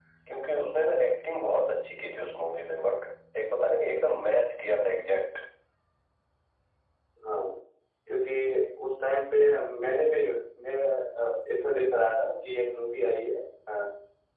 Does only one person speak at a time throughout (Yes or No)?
Yes